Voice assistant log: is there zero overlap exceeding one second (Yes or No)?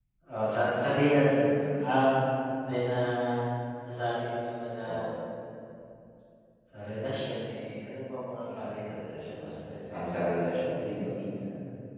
No